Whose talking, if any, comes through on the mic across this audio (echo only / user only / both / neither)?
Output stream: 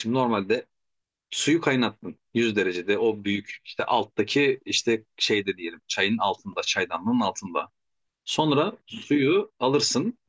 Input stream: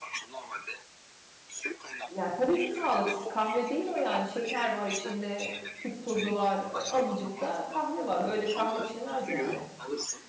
both